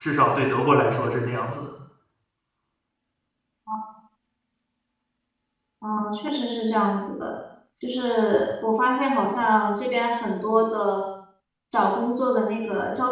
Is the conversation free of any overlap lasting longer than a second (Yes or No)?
Yes